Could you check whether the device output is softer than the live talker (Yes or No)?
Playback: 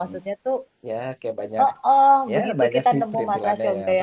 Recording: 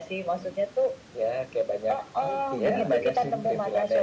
No